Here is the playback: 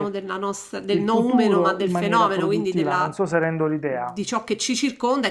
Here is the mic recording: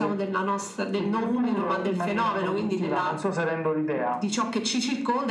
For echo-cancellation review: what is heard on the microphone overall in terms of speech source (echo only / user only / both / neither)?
echo only